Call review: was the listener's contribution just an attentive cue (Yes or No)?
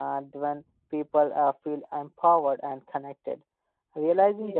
Yes